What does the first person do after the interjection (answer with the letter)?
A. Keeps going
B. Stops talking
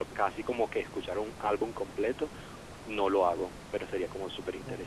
B